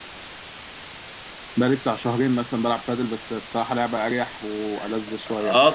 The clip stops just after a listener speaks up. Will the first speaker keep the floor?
No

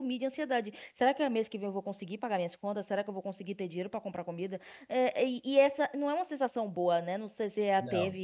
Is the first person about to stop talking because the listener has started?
No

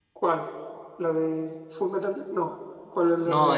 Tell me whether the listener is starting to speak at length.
Yes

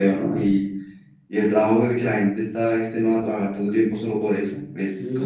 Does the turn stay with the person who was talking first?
No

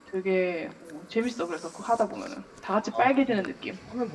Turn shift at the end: Yes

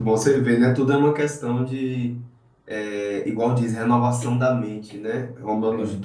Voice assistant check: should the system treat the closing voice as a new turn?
No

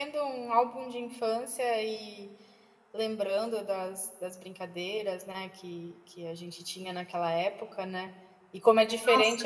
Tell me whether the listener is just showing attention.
Yes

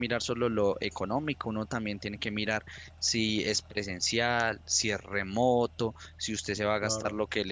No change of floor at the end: Yes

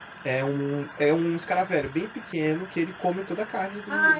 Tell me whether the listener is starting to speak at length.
Yes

